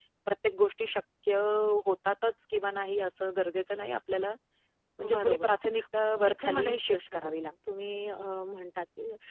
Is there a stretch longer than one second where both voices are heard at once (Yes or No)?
Yes